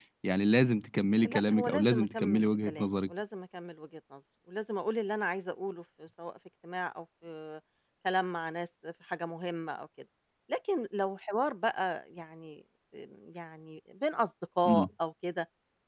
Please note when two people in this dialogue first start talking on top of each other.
1.2 s

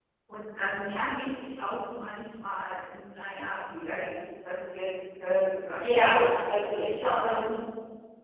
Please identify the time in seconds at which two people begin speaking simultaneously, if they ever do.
5.8 s

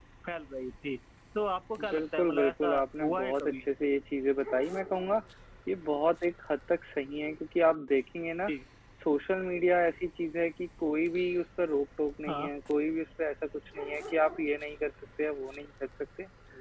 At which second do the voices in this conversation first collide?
1.9 s

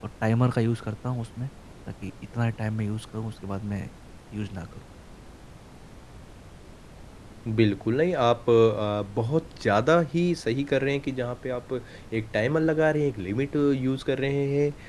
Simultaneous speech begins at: none

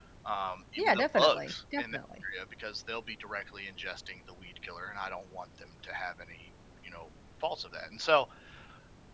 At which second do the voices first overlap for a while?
0.8 s

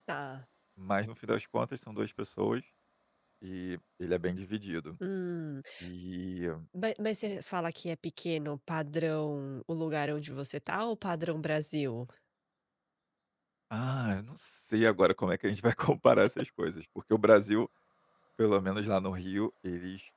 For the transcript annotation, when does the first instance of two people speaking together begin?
none

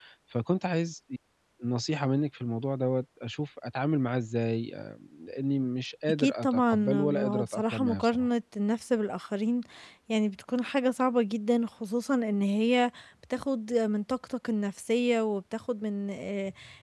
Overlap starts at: 6.1 s

